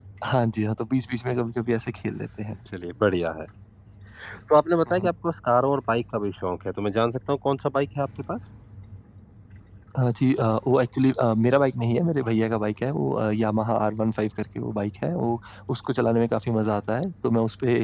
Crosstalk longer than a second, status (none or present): none